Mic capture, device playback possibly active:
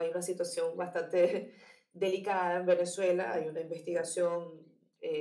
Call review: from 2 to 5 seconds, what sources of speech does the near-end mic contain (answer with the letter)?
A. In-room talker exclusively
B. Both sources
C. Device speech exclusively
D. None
C